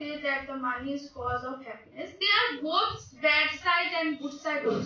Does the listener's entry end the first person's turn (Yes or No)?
No